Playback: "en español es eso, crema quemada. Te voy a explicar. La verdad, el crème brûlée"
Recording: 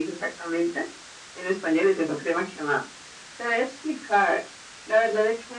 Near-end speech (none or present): none